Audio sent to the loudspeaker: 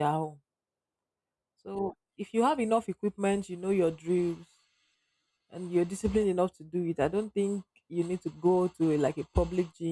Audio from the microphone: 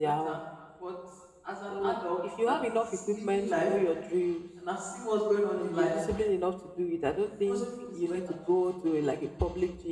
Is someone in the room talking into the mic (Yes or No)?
Yes